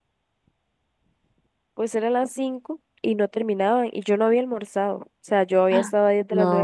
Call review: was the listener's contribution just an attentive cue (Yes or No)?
Yes